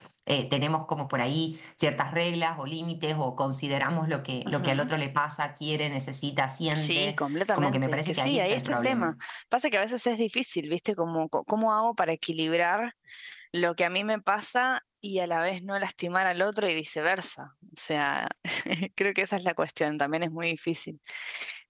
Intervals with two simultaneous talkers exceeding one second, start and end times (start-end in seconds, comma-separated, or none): 6.7-9.1